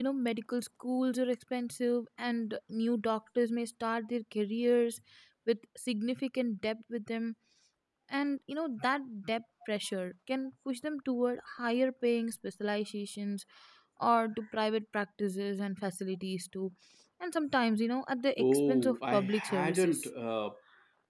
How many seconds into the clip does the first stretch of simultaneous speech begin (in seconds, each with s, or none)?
18.4 s